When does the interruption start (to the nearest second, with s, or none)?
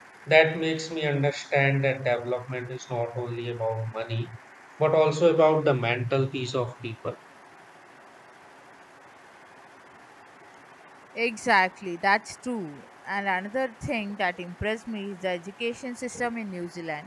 none